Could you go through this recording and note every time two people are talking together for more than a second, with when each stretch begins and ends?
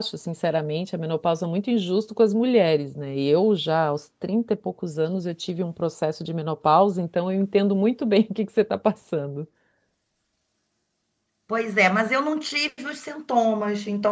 none

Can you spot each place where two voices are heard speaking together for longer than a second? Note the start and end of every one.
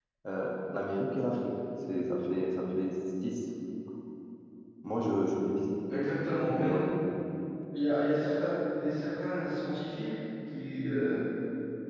none

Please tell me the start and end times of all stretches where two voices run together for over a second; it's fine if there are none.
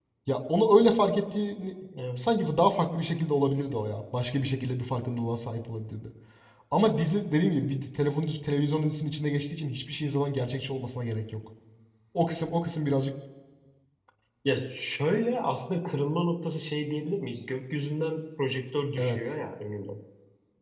none

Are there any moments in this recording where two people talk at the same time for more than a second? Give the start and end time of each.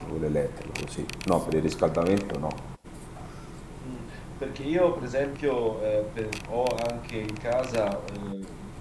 none

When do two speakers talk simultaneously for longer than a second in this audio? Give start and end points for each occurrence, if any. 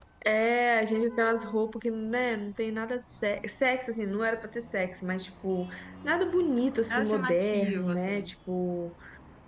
6.9-8.3

